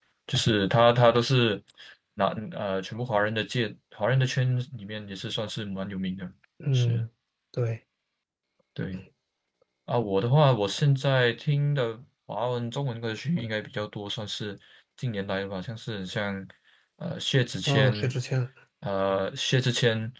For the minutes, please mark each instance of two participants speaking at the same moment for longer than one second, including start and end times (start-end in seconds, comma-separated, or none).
none